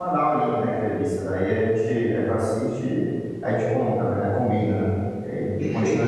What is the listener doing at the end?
taking over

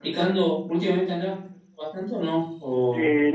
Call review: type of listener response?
taking over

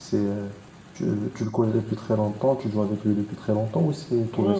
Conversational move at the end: taking over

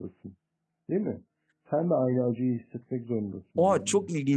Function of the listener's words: taking over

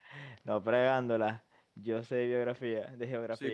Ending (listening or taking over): taking over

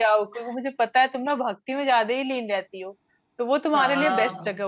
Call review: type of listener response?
listening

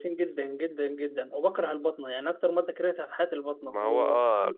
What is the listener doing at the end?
taking over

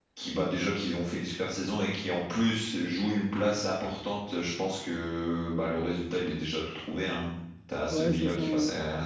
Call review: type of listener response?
taking over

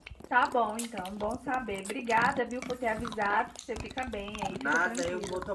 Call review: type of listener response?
taking over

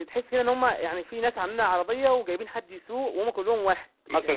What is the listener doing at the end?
taking over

